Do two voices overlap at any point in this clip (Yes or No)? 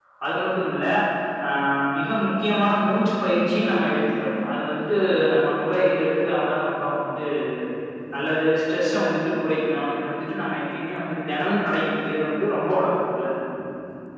No